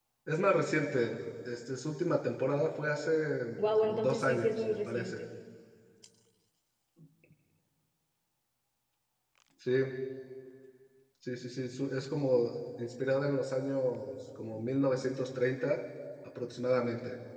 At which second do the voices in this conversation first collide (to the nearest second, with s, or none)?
4 s